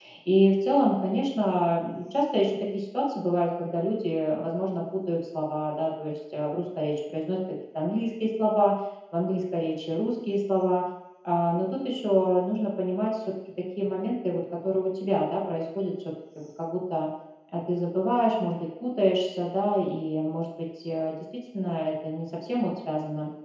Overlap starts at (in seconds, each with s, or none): none